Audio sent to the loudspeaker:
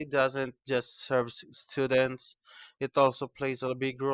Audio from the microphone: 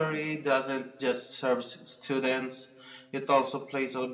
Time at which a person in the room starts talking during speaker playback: none

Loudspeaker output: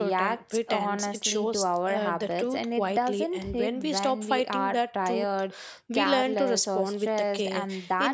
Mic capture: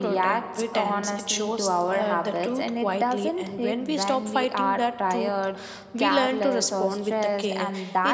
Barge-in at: none

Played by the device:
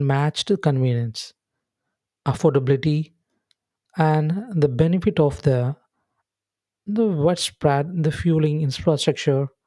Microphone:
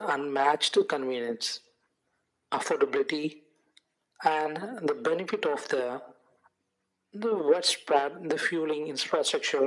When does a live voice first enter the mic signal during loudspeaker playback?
none

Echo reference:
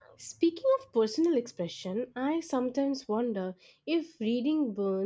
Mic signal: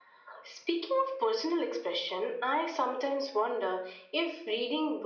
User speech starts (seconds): none

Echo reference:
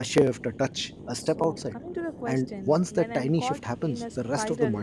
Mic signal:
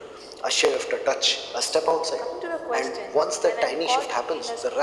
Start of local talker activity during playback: none

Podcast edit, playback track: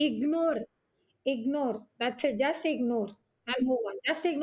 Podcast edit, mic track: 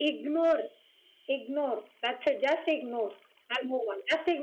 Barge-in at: none

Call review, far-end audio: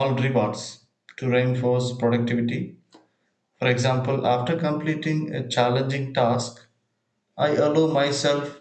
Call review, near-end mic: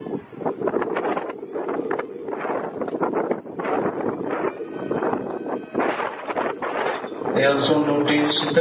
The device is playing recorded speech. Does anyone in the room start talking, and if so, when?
7.3 s

